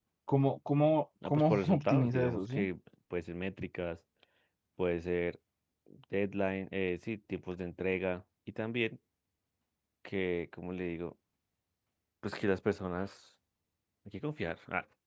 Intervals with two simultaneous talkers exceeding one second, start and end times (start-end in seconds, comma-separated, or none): 1.2-2.7